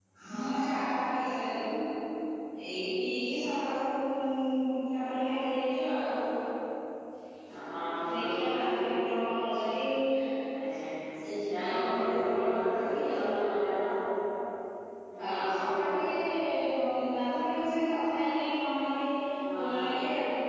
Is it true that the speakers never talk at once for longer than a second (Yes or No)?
No